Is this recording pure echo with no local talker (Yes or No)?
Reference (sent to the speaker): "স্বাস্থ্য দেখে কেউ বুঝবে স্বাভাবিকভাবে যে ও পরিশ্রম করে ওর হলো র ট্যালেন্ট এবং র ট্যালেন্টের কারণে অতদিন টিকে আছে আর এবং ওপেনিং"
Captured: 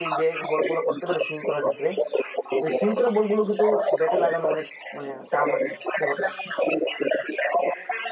No